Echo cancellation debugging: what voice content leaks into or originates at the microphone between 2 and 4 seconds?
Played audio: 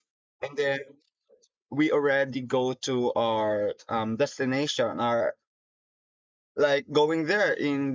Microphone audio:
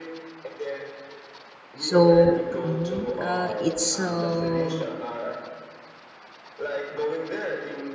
both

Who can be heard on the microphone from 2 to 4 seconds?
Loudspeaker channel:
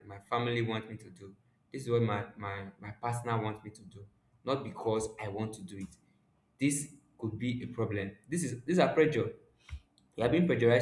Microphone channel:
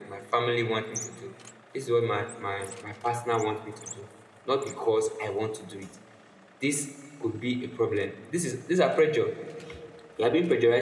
echo only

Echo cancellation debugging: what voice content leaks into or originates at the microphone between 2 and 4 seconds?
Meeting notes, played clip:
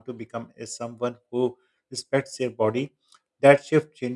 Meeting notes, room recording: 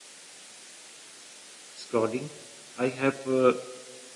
user only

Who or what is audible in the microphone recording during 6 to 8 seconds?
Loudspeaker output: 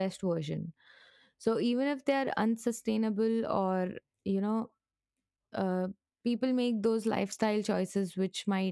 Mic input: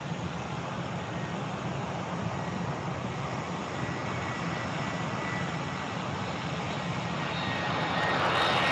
neither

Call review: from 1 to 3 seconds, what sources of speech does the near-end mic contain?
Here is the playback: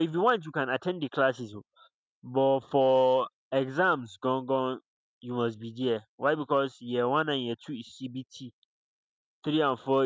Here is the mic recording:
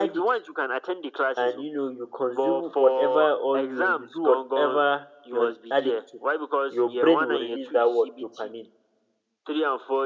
both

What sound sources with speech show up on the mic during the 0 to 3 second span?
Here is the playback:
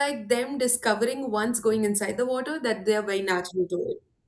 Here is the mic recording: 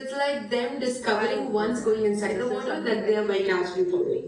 both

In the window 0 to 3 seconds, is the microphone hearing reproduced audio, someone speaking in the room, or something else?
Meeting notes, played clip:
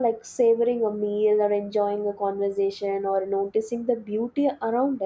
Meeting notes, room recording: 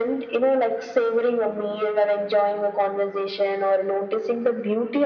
echo only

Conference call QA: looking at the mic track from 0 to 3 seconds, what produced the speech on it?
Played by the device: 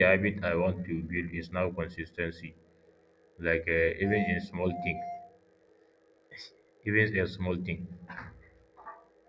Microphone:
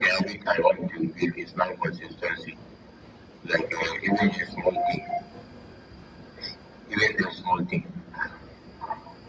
echo only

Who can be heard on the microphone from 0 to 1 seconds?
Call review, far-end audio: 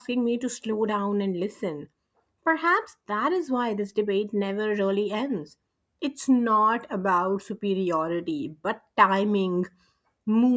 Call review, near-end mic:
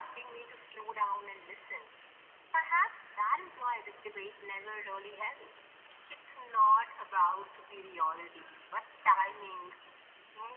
echo only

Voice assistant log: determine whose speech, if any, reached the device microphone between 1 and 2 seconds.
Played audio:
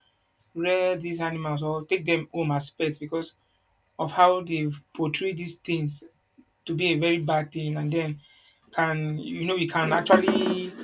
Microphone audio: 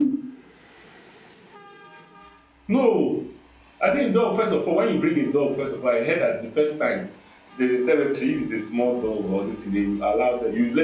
neither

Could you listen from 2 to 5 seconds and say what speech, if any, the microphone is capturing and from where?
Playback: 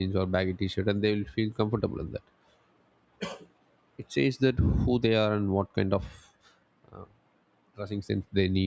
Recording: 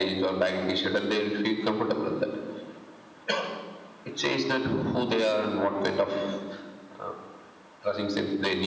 echo only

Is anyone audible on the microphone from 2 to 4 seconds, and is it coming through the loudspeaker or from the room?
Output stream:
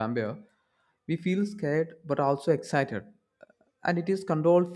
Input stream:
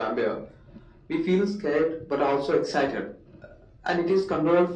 echo only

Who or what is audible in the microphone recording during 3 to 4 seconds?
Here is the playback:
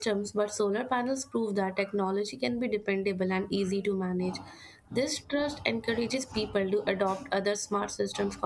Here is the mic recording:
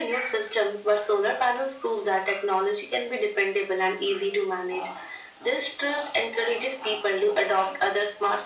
echo only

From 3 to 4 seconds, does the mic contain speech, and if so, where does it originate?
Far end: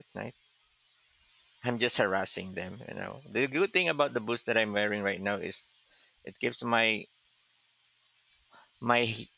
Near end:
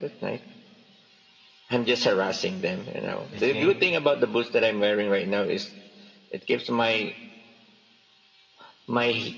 both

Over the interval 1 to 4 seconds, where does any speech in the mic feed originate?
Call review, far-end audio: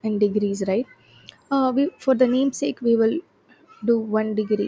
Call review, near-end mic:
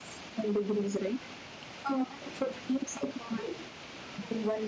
echo only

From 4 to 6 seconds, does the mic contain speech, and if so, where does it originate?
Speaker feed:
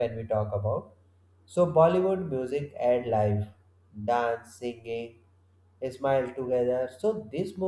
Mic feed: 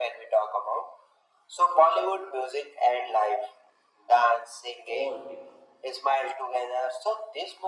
both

